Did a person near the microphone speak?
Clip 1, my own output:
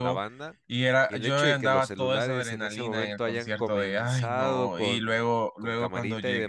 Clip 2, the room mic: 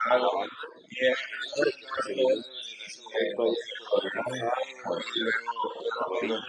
No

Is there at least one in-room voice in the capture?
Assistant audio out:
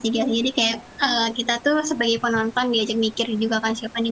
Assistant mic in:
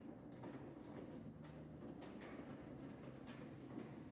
No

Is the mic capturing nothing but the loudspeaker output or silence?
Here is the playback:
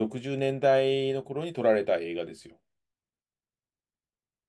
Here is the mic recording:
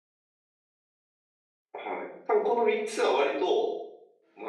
No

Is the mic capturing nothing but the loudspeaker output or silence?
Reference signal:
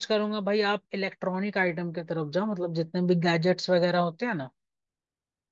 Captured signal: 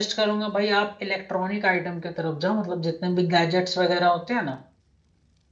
Yes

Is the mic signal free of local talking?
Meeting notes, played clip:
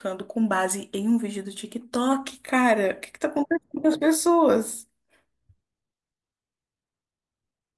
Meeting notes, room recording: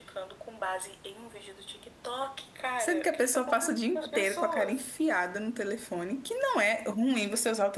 No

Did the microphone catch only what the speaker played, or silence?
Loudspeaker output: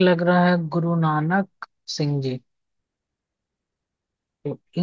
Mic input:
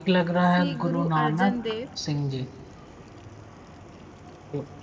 No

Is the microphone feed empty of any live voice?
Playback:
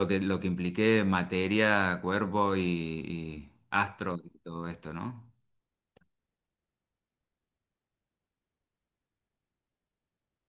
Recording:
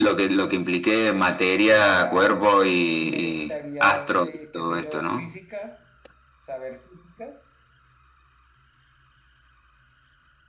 No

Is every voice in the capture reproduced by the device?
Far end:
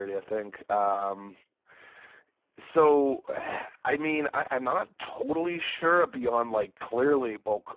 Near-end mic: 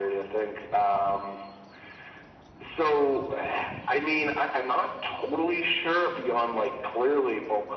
Yes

